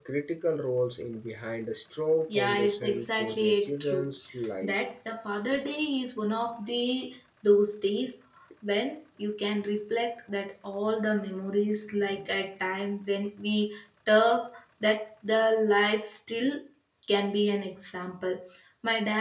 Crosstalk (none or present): present